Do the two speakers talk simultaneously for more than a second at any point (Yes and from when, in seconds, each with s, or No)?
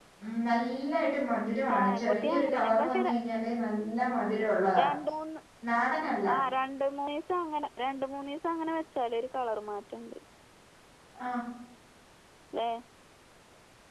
Yes, from 1.7 s